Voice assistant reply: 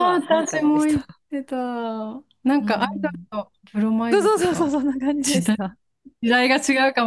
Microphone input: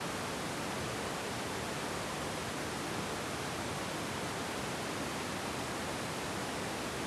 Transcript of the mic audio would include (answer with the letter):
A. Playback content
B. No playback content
B